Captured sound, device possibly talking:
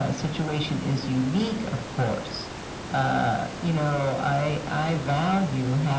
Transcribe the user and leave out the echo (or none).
none